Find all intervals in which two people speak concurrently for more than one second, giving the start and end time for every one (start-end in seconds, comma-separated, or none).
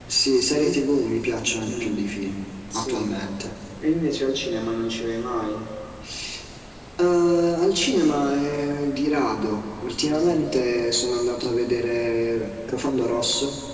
none